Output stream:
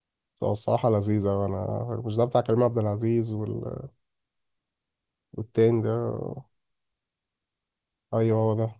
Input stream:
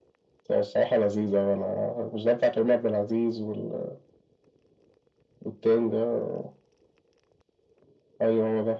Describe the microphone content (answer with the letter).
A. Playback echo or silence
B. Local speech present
A